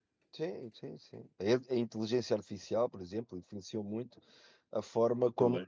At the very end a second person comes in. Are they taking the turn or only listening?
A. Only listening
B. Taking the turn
A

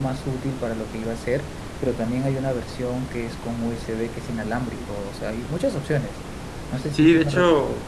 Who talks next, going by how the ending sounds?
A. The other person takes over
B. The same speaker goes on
A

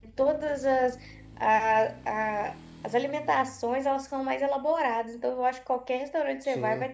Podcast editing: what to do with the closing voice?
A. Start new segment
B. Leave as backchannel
B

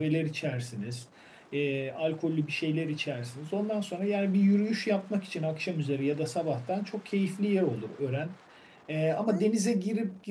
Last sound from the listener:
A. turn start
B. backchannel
B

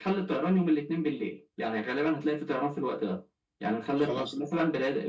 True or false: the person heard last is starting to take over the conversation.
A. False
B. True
A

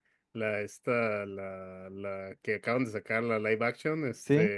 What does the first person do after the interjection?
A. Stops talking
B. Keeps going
B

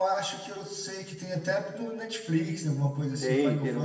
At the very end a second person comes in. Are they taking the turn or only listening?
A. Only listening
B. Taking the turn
B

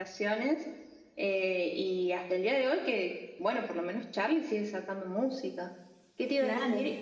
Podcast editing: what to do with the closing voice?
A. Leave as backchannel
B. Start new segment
A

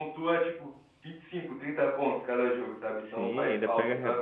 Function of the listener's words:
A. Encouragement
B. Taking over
B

